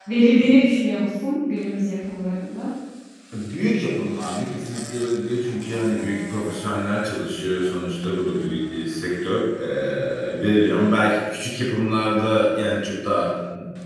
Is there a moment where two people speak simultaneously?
No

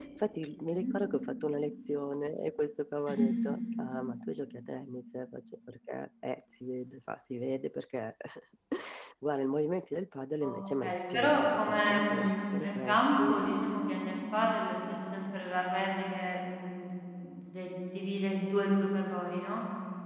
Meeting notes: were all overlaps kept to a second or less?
No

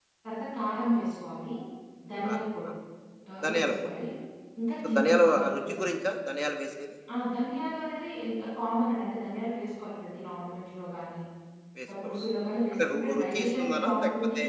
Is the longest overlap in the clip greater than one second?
Yes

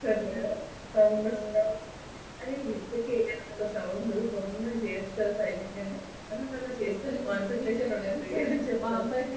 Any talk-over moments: Yes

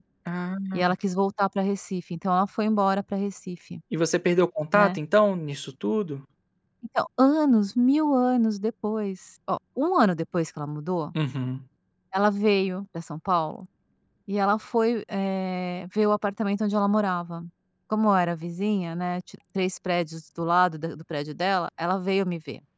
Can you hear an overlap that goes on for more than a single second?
No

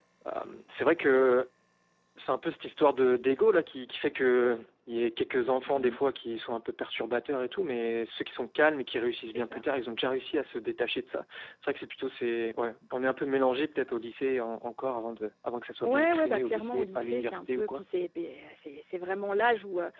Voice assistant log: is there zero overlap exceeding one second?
No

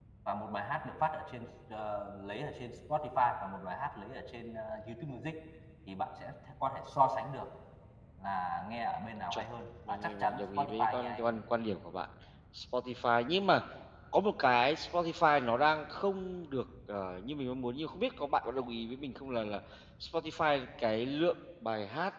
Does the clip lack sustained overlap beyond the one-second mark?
No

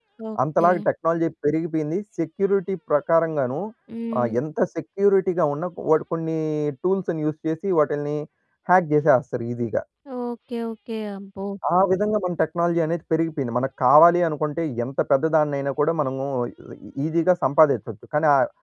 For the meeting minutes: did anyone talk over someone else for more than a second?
No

